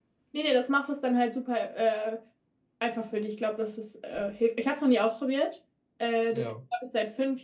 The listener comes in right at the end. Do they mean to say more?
No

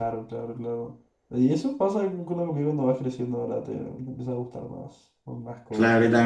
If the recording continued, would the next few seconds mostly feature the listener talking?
Yes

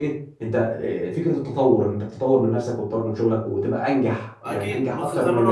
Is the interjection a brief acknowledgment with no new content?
No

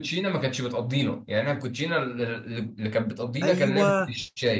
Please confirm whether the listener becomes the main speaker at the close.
Yes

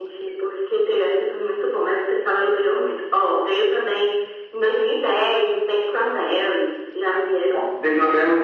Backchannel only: No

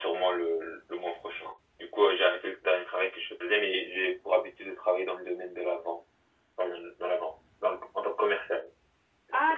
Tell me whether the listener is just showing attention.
No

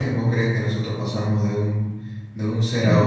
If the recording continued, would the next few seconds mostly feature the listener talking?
Yes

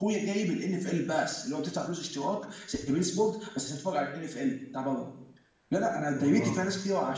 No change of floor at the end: Yes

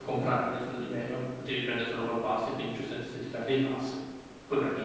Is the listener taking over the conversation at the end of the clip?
Yes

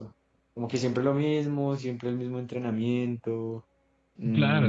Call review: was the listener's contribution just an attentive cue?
No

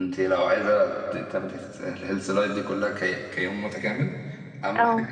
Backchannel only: Yes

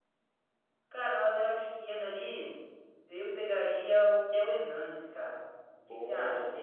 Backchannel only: No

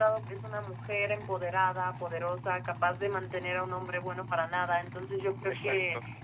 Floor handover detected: No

